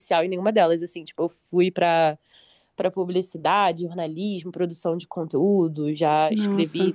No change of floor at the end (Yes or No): Yes